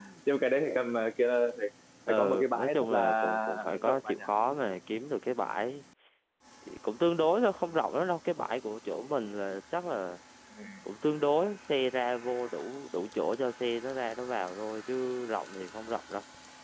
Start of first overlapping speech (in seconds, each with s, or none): 2.1 s